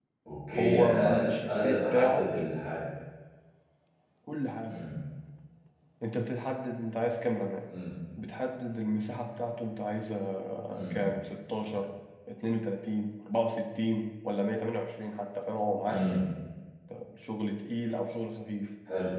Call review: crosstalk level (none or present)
present